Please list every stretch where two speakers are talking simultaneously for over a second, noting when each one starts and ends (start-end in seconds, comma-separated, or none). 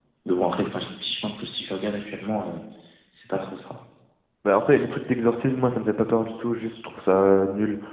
none